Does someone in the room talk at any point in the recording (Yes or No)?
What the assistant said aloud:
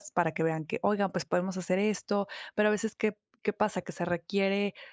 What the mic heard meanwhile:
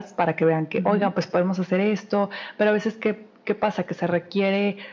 Yes